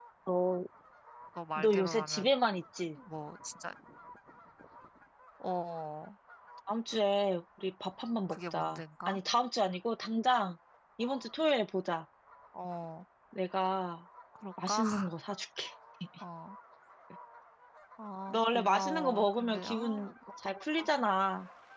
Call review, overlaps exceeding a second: present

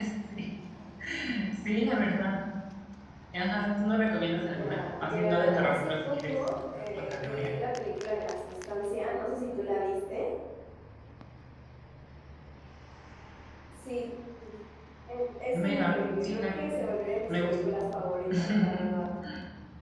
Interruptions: present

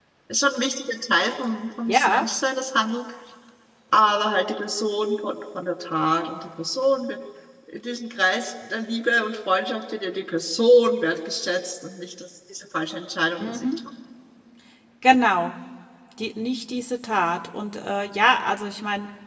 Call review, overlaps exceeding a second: none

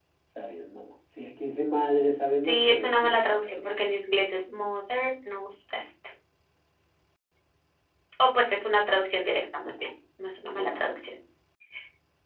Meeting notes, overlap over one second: present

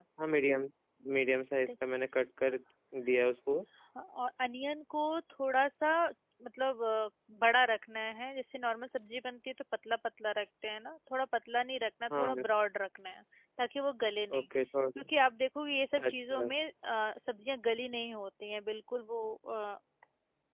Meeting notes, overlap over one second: none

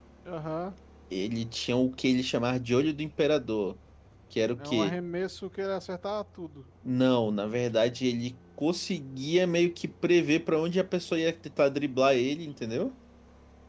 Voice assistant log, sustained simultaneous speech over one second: none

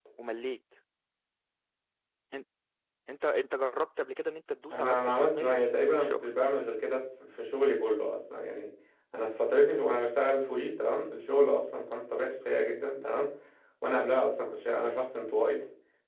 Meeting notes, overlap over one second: present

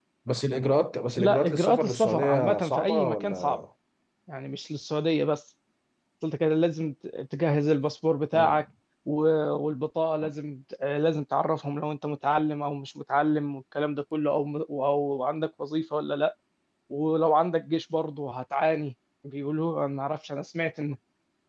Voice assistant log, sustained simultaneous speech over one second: present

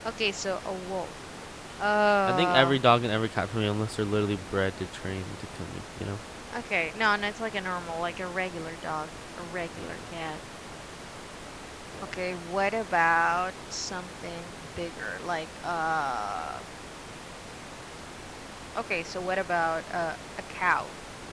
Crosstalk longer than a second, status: none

